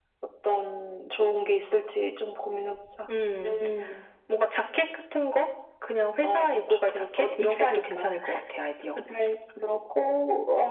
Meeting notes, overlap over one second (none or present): present